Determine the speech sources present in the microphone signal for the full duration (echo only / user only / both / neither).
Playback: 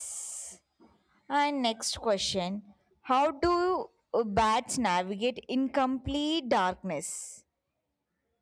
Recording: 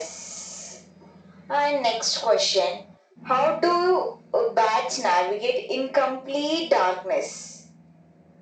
echo only